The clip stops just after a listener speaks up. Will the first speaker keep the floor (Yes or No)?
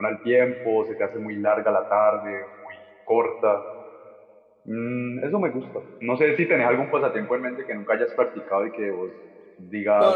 No